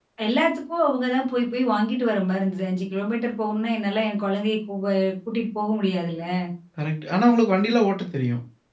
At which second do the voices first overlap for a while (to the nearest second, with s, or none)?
none